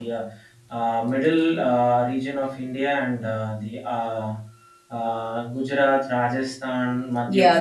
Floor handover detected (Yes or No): Yes